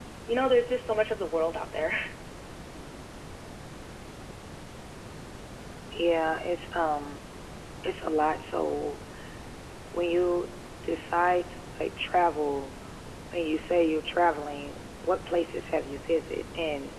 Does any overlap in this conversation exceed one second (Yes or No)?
No